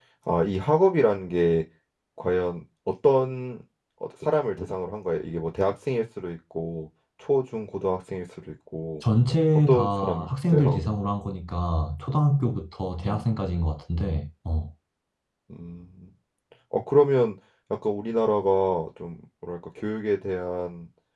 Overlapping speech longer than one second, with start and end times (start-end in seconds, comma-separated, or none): 9.7-10.9